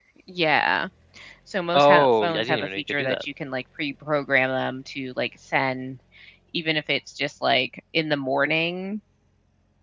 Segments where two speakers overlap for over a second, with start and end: 1.7-3.2

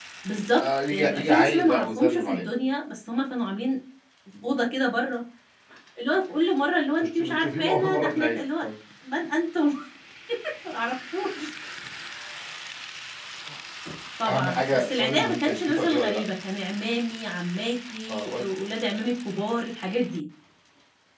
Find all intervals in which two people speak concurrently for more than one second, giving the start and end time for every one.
0.6-2.4, 7.0-8.7, 14.3-16.2

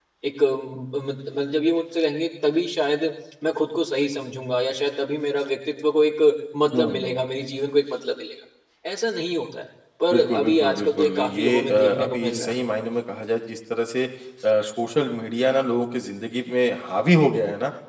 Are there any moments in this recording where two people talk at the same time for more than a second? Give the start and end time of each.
10.1-12.5

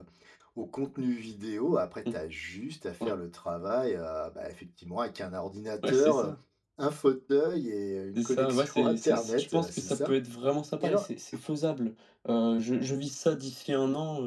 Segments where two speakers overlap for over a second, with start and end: 8.2-10.1

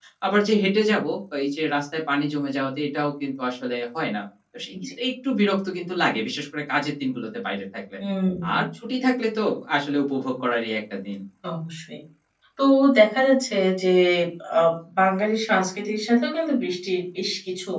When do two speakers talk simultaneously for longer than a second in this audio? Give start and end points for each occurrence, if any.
none

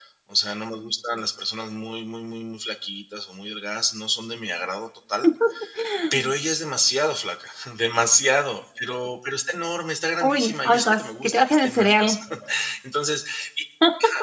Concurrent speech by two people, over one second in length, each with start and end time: 10.3-12.2

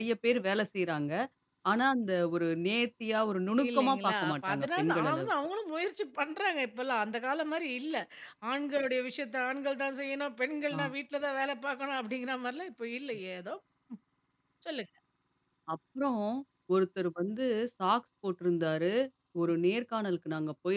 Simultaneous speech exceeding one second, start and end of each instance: 3.7-5.3

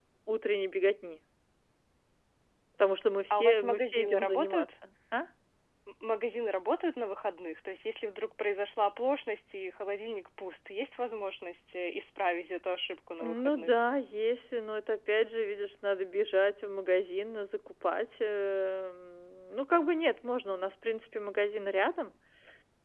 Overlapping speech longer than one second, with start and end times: 3.3-4.7

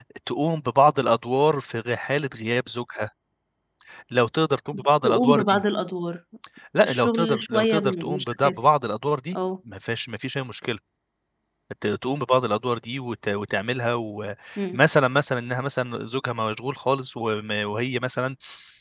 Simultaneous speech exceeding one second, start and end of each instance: 6.8-8.6

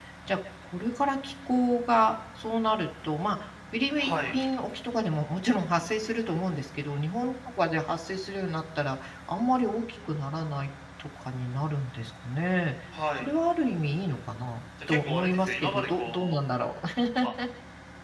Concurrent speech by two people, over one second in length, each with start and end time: 14.9-16.4

